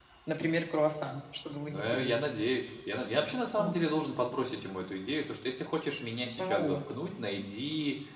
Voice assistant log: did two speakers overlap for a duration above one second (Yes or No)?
No